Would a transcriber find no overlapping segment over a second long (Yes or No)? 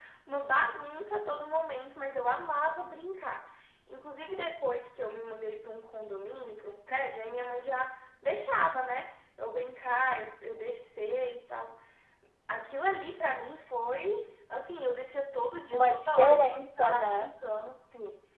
No